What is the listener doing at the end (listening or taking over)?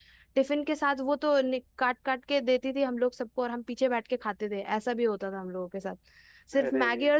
listening